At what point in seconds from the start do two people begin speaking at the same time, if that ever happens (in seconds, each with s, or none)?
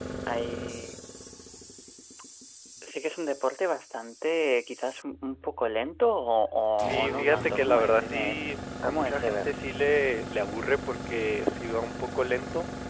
6.8 s